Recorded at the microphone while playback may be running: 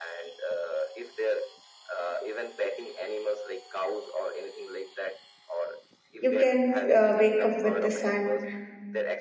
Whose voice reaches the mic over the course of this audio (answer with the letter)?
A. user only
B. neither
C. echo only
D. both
D